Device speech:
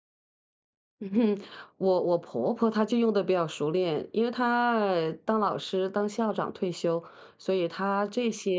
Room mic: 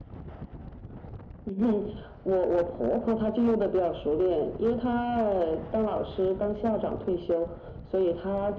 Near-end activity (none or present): none